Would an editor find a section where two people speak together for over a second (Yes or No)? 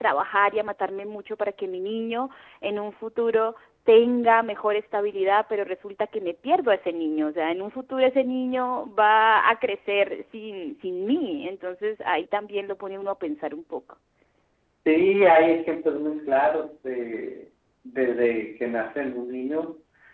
No